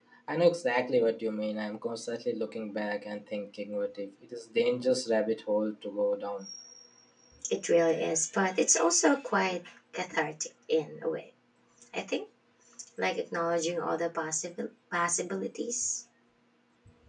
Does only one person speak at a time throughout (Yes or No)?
Yes